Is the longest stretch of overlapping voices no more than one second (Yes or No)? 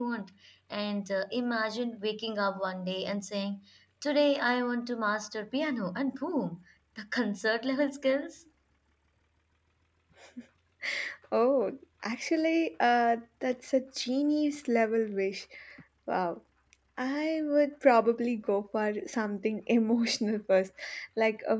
Yes